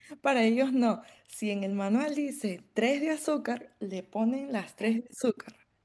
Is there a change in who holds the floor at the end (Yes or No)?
No